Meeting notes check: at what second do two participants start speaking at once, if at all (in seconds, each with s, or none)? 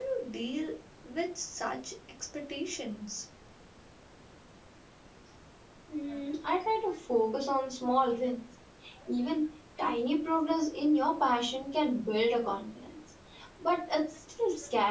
none